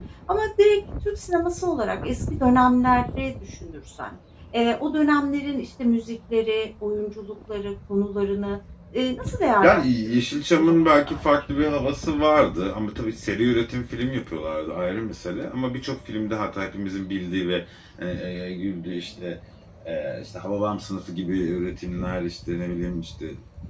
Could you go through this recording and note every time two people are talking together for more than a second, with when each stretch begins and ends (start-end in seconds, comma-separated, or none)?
9.6-11.2